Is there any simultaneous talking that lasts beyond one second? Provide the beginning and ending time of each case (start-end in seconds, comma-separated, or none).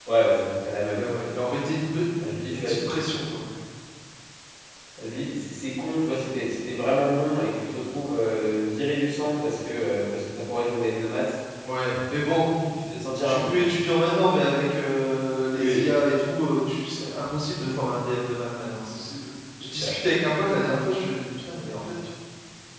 none